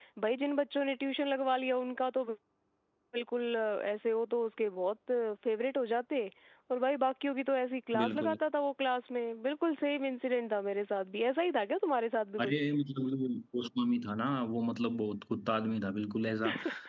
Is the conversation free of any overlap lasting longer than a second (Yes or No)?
Yes